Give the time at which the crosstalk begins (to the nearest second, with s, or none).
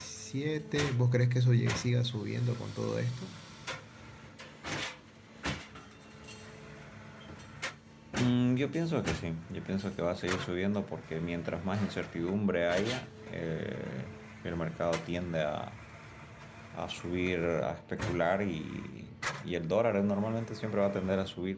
none